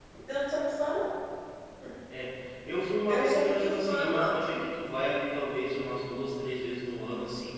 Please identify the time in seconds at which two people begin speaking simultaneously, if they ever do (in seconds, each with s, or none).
3.1 s